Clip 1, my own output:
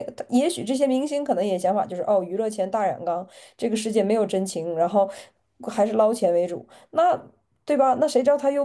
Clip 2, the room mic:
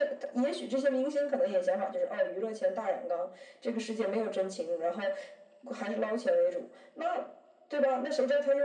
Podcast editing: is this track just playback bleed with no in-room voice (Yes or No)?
Yes